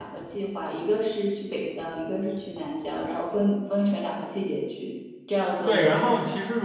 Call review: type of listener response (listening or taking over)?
taking over